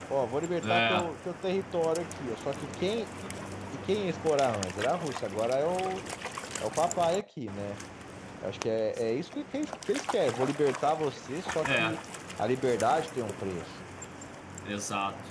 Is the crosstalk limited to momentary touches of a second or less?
Yes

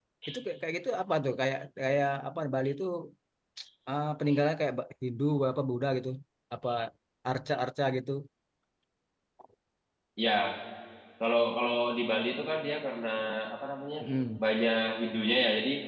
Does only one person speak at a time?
Yes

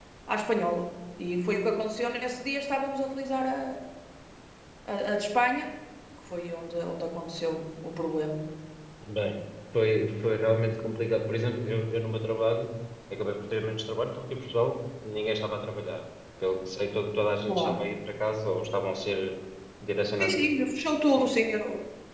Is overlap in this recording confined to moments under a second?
Yes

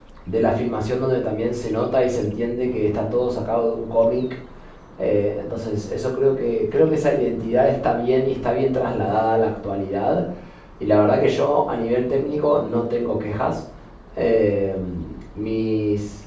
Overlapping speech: No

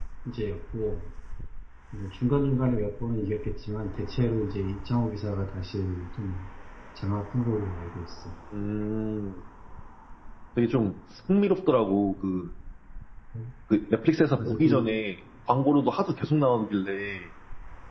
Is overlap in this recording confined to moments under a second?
Yes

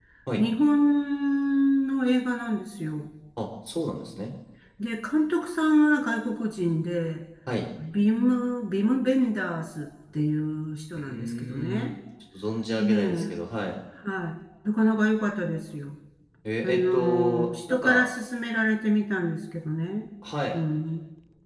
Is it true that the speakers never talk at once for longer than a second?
No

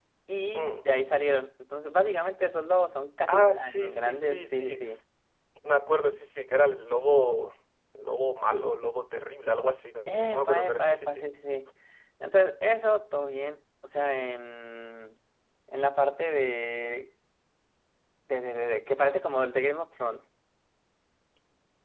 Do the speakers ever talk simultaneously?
Yes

